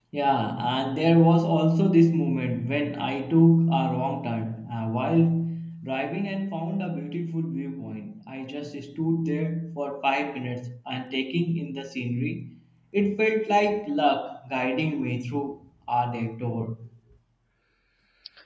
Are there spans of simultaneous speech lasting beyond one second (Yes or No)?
No